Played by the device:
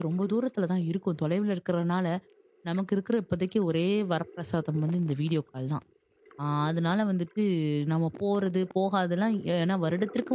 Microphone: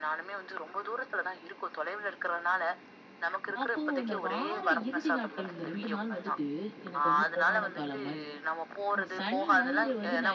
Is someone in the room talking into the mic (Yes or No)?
Yes